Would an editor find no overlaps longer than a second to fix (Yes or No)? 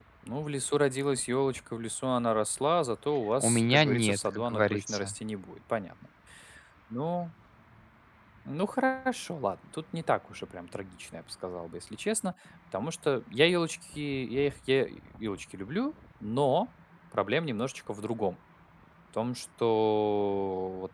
No